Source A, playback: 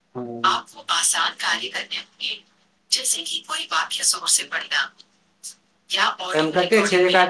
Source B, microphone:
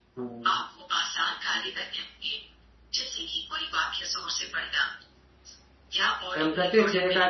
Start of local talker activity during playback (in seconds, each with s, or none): none